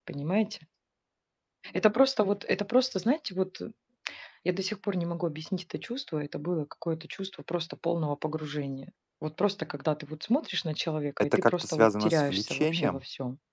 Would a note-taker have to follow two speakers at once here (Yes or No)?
Yes